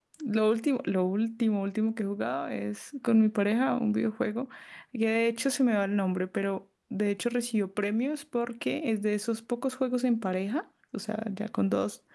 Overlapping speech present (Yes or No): No